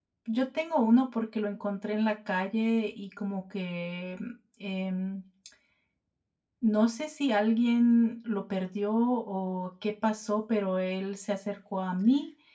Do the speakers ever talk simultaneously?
No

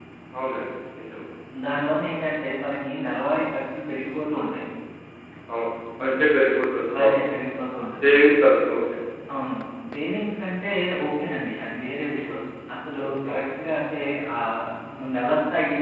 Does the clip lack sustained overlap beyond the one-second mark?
Yes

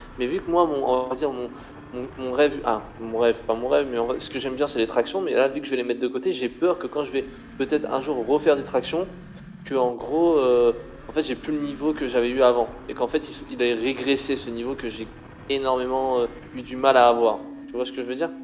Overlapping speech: No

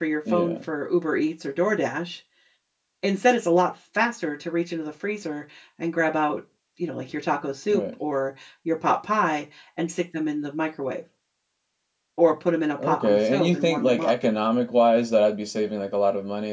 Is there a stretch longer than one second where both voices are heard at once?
Yes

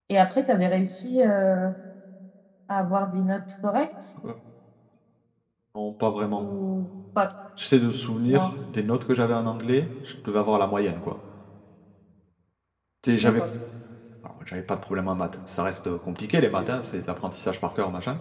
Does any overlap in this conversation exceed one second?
No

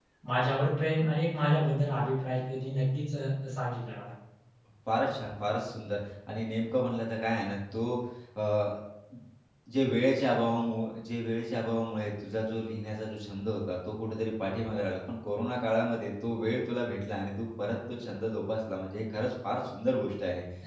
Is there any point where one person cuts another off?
No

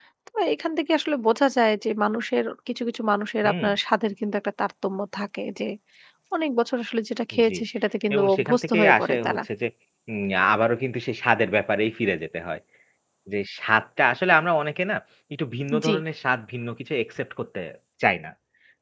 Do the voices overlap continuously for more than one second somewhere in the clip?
Yes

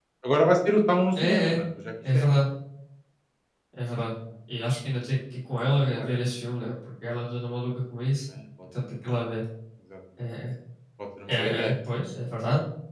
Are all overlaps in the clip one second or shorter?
Yes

